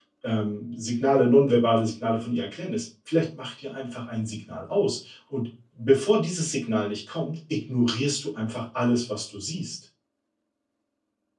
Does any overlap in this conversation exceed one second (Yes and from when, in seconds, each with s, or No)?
No